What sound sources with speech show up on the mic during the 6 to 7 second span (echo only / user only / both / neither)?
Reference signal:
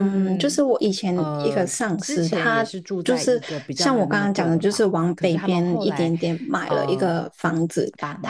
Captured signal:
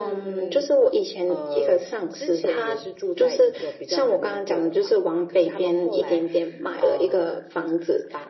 echo only